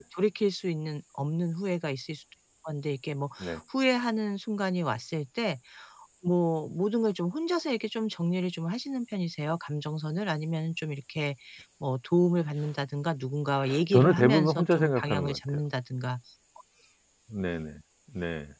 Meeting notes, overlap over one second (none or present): present